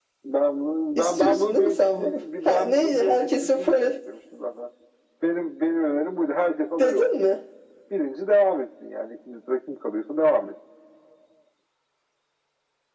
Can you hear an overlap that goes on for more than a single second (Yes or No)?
Yes